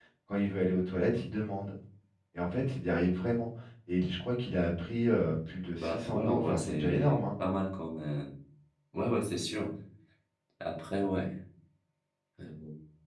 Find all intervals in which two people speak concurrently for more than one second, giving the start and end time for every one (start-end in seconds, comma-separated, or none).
5.7-7.2